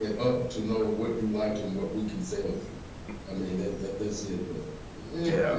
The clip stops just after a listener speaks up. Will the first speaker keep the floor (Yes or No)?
No